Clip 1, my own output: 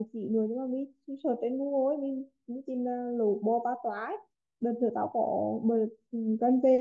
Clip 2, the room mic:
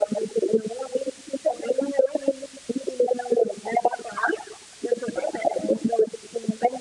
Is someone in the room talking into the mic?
No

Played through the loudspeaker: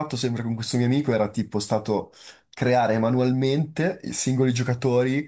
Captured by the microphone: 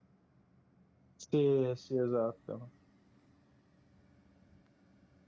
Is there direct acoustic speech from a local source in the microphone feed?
Yes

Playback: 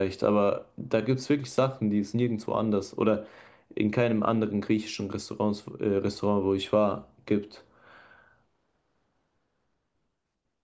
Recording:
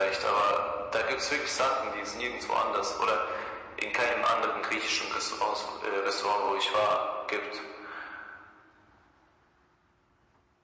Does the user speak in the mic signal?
No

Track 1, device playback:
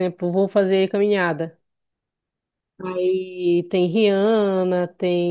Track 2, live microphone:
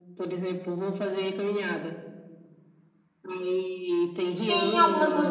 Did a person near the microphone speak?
Yes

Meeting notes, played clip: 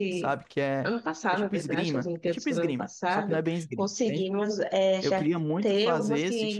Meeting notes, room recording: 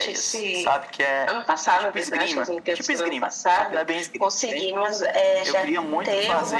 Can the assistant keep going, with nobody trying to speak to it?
Yes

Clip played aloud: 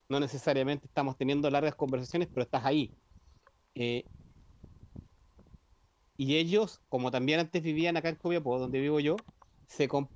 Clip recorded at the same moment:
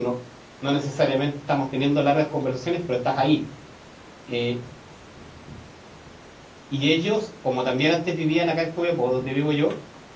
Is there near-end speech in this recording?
No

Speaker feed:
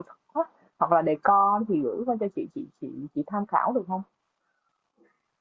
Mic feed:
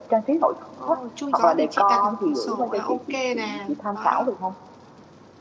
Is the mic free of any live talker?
No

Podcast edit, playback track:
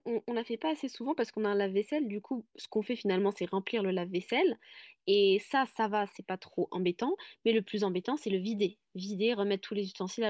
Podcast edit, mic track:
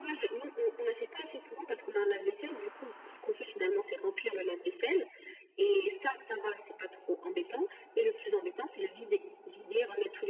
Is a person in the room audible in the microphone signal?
No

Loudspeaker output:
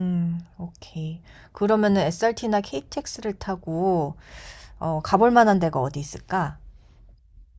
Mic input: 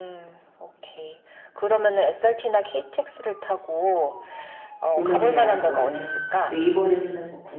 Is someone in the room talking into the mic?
Yes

